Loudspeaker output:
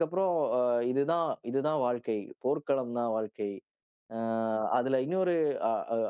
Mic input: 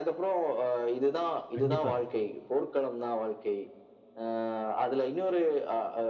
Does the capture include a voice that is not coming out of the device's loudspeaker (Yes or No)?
Yes